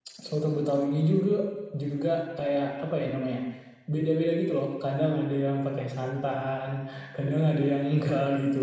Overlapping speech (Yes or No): No